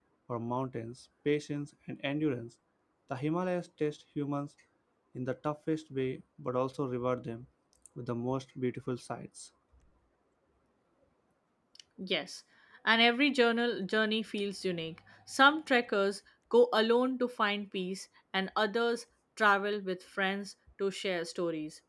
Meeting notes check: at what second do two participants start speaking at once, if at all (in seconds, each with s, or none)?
none